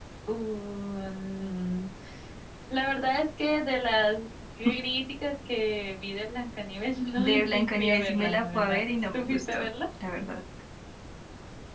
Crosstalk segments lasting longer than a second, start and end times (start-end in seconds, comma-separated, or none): 7.2-9.7